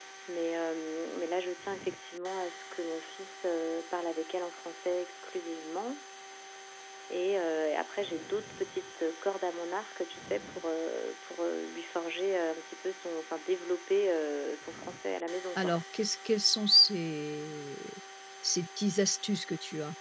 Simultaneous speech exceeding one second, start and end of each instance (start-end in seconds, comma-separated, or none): none